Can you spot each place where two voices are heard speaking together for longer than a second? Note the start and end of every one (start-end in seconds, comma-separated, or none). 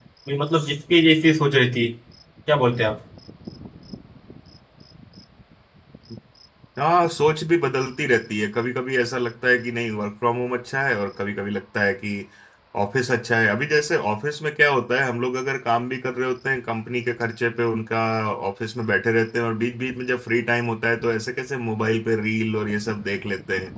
none